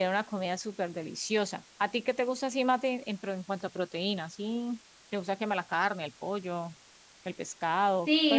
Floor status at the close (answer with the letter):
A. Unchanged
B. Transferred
B